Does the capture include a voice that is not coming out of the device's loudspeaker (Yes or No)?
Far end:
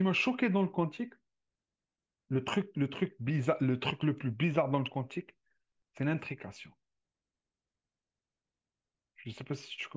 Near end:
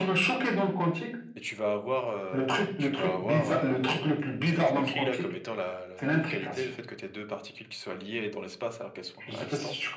Yes